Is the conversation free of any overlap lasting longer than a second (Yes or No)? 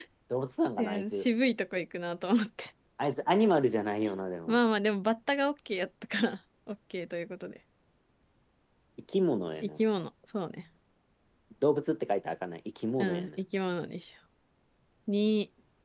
Yes